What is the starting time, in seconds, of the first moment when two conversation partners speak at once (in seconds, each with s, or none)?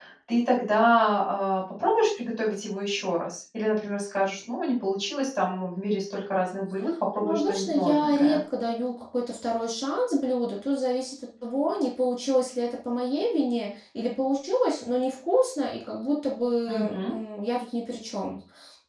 7.2 s